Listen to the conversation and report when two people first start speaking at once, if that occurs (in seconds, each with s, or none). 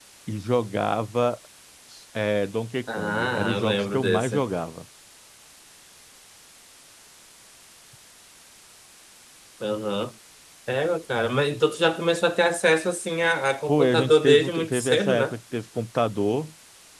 2.9 s